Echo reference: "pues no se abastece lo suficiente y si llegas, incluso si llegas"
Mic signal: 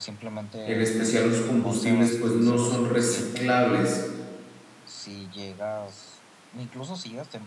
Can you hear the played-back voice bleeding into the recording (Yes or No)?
Yes